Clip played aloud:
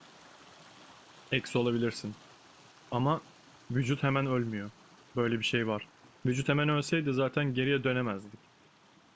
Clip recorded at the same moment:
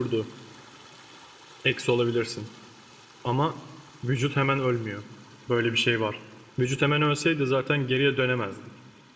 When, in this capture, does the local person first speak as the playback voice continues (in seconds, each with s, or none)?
none